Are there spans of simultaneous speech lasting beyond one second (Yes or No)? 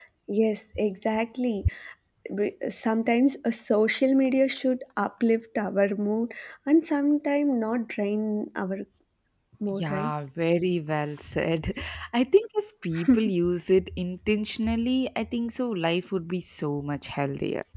No